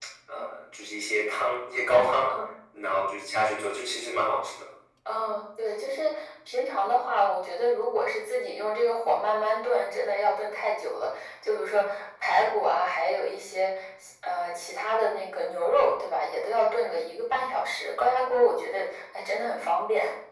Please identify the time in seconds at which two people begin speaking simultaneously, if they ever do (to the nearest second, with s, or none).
none